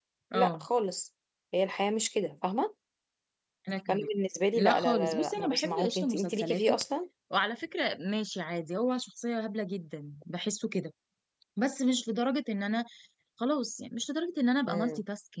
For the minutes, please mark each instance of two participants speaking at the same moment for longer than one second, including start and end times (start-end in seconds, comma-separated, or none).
4.5-6.8